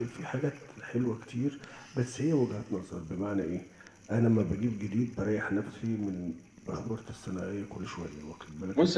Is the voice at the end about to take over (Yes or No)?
Yes